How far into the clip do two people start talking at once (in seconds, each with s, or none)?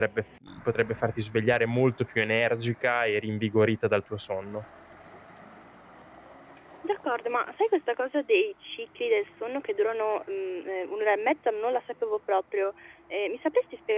none